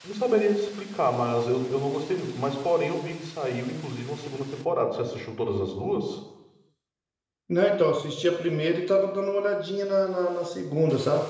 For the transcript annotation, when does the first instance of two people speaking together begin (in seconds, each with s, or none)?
none